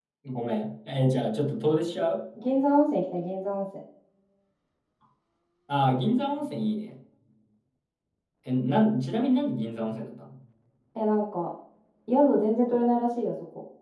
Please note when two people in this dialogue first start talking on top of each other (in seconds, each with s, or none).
none